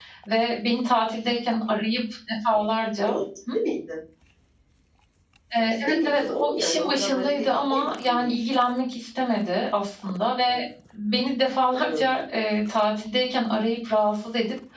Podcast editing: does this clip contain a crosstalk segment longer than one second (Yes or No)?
Yes